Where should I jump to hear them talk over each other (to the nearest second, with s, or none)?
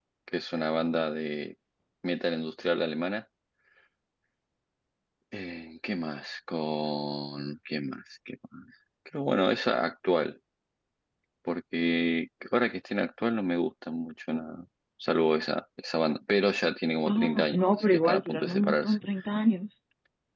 17 s